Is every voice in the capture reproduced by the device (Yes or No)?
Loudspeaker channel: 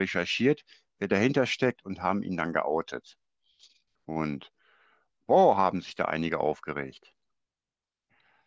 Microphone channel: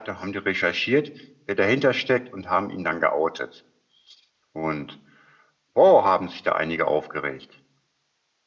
Yes